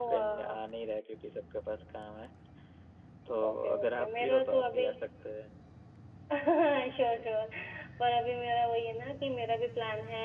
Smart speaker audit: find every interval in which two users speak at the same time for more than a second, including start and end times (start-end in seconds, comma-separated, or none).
3.5-4.9